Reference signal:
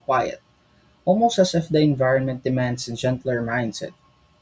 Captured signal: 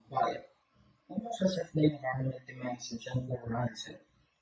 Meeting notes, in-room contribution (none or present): none